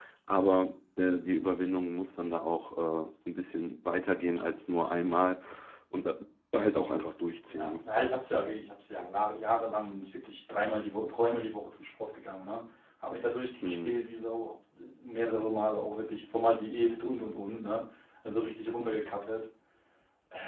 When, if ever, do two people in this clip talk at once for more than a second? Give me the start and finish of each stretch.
none

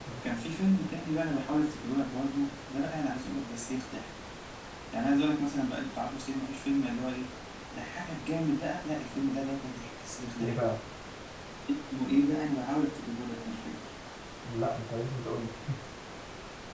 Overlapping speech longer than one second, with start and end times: none

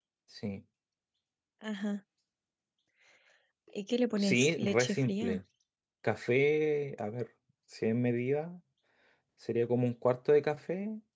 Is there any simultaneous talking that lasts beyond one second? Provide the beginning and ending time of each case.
4.2-5.4

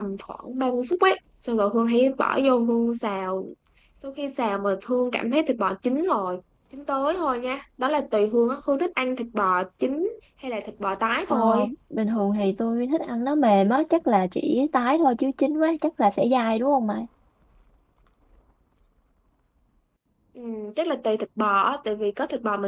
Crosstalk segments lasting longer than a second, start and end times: none

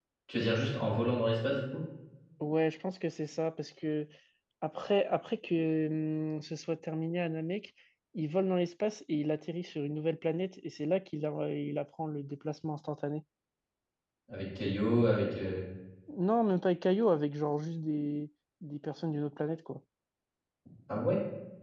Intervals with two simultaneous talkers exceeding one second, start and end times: none

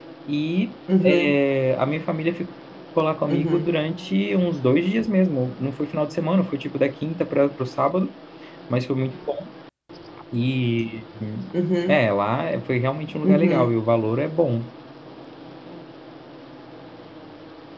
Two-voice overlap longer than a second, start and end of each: none

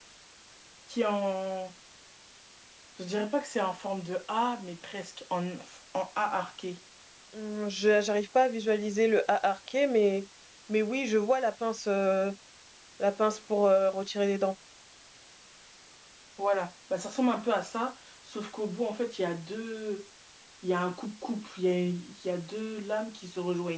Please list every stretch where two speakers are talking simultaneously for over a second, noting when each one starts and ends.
none

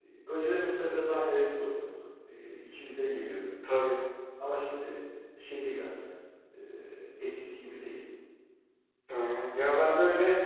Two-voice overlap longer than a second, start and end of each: none

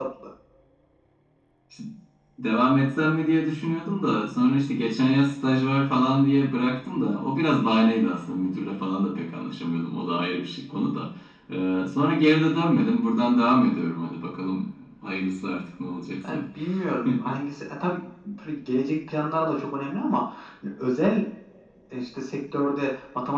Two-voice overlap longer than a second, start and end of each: none

